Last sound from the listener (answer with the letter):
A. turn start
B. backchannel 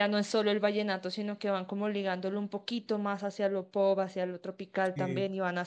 B